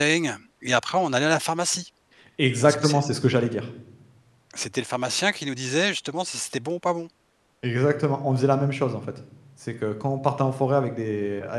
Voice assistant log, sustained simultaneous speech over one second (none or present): none